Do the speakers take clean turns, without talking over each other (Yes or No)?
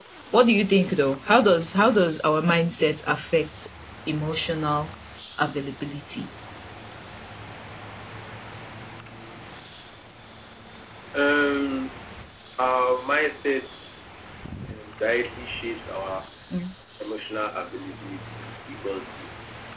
Yes